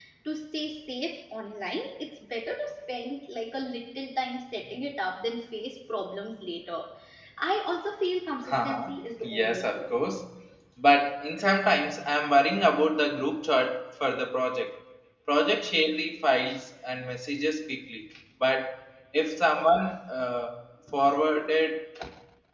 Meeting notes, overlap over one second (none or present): present